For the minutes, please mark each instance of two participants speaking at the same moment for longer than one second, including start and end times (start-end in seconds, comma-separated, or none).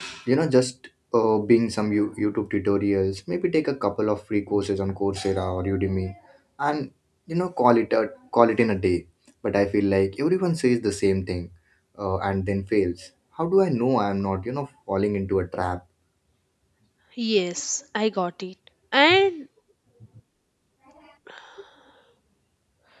none